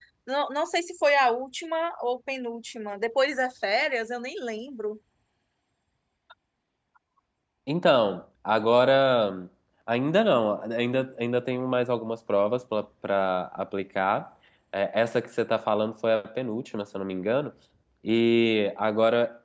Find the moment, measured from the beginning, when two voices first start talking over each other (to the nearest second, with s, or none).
none